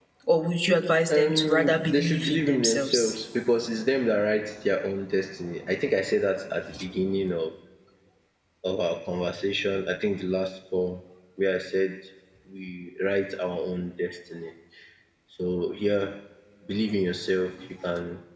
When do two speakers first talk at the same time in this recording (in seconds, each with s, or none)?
1.2 s